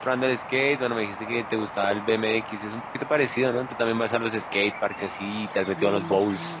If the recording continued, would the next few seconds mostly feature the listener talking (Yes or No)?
Yes